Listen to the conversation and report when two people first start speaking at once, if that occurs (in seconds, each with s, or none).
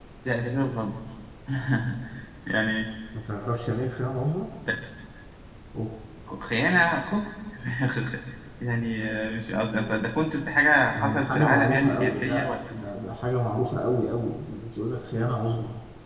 10.9 s